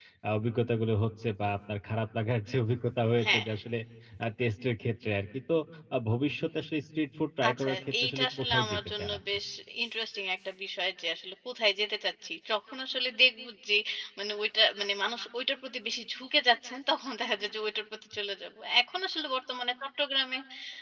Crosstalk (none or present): present